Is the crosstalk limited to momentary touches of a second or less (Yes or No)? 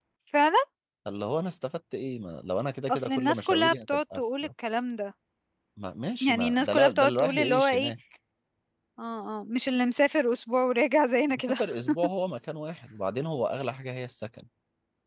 No